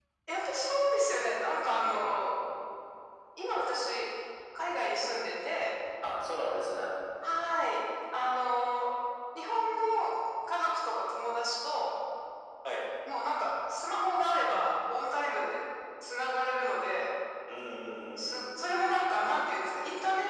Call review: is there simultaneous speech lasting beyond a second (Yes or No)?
No